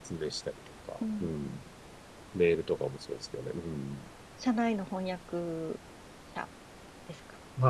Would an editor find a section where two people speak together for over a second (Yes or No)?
No